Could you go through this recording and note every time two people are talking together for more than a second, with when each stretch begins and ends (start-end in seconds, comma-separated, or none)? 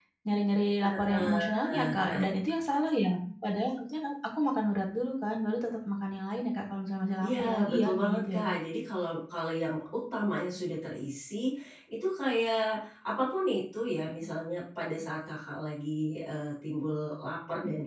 0.8-2.3, 7.2-8.4